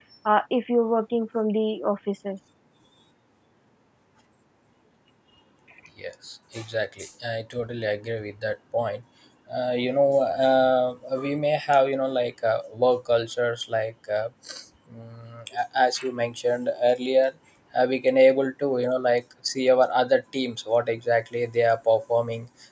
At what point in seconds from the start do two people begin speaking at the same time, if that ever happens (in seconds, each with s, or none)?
none